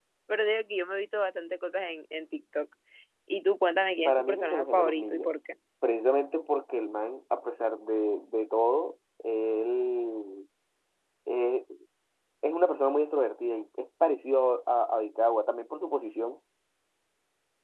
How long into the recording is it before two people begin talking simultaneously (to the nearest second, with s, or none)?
4 s